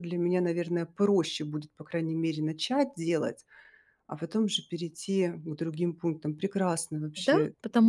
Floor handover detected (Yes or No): Yes